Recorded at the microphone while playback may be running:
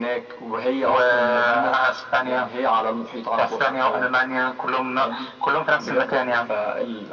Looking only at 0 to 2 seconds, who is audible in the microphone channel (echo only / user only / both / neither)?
echo only